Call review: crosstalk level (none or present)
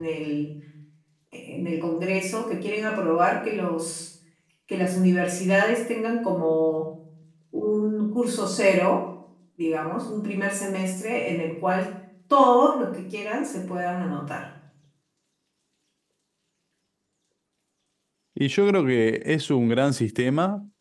none